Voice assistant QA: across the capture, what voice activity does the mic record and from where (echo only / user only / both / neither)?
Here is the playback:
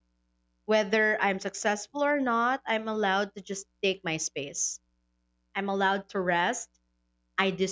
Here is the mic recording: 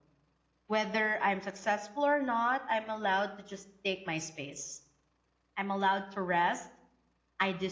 echo only